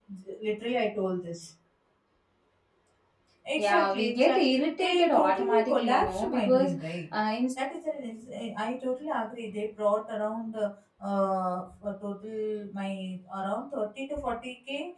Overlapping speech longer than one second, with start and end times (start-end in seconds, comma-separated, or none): 3.6-6.7